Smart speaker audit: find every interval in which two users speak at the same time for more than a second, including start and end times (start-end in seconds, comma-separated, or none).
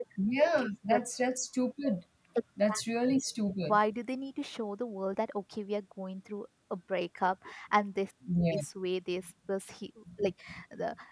none